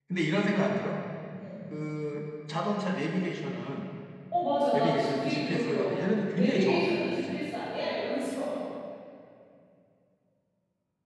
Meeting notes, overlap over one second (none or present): present